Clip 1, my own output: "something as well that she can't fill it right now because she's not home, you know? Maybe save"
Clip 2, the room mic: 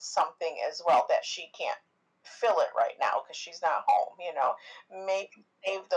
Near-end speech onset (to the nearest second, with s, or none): none